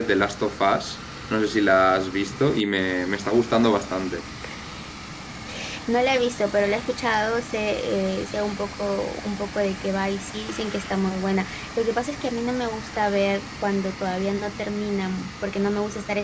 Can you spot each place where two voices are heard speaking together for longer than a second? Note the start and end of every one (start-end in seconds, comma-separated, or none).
none